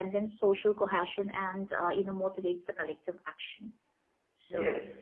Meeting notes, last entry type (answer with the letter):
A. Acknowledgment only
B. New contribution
B